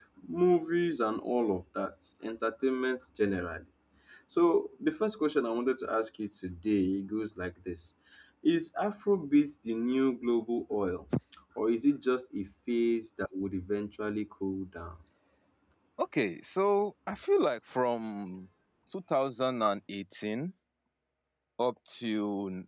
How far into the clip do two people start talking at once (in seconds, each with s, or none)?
none